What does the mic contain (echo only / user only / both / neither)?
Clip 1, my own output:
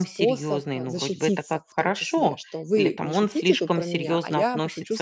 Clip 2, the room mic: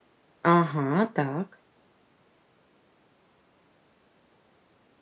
user only